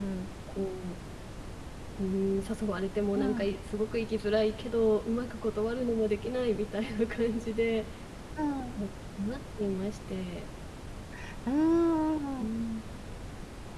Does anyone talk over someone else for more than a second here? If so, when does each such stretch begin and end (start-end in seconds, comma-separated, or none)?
none